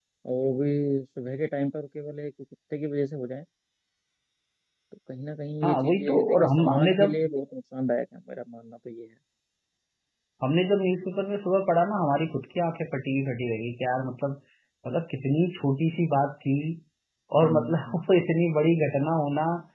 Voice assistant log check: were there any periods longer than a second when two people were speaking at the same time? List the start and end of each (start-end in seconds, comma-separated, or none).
5.6-7.2